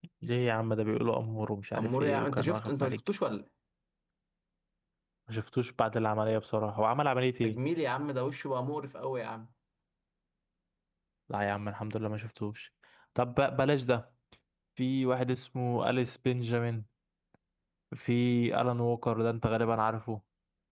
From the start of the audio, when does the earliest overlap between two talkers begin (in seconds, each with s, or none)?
1.8 s